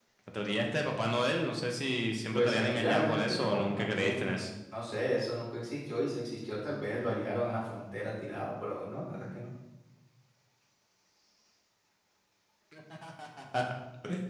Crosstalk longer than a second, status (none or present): present